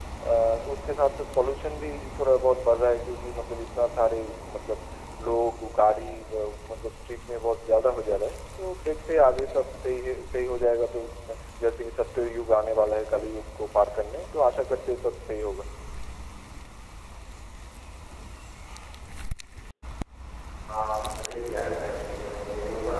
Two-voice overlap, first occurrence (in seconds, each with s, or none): none